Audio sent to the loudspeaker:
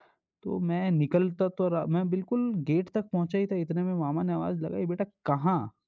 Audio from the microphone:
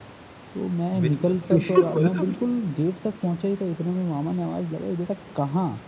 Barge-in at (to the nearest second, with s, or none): 1 s